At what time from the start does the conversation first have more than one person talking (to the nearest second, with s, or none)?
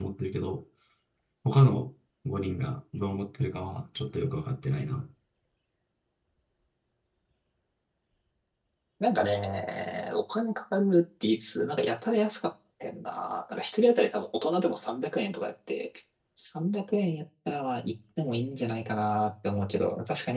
none